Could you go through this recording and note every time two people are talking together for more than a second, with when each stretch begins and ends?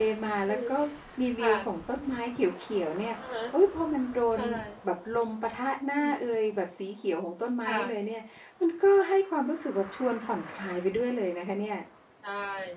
none

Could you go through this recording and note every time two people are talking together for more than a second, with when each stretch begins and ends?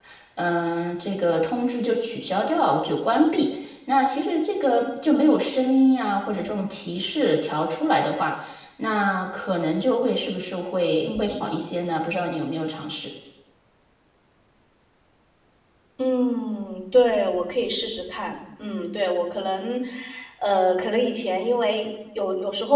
none

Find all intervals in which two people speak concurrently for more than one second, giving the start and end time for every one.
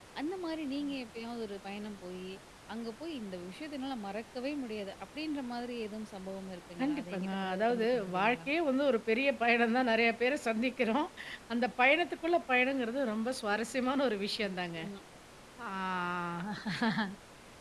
6.8-8.5

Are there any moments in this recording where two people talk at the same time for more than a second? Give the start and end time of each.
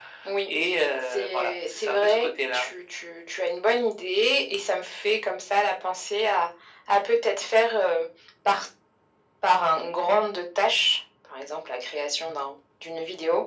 1.1-2.7

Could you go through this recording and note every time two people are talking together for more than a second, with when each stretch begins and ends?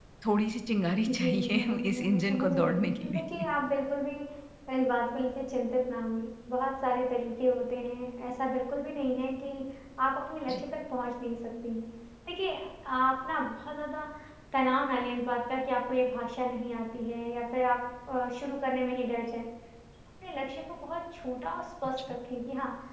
1.1-3.2

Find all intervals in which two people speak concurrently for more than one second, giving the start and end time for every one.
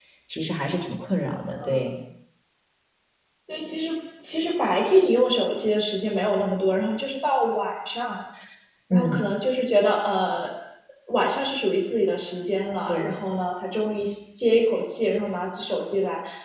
none

